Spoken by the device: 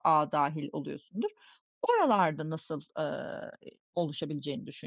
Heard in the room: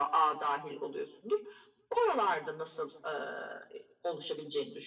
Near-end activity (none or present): none